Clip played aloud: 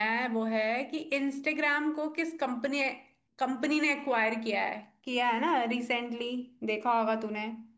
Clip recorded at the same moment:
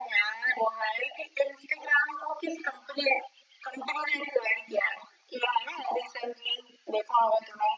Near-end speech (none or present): none